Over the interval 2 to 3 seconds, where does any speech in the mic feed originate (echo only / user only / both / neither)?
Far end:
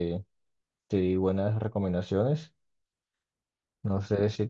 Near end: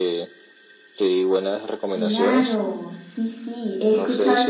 both